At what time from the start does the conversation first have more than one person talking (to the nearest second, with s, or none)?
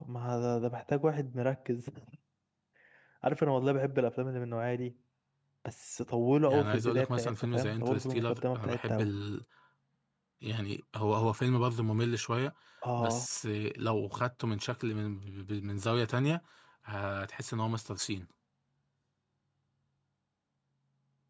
6 s